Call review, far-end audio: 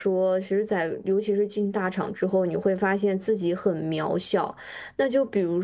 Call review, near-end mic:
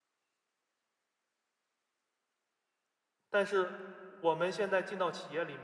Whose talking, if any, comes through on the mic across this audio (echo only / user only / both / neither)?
user only